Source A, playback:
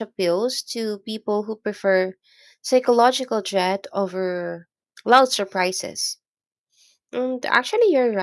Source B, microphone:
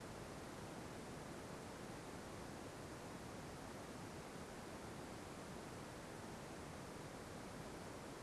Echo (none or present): none